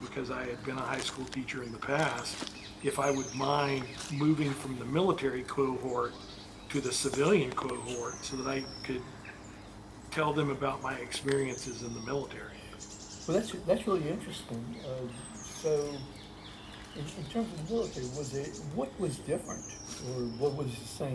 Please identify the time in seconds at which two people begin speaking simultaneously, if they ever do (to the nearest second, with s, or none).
none